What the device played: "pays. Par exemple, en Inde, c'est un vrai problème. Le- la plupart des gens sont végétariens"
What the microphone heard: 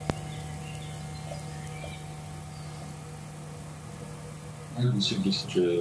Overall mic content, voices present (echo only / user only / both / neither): user only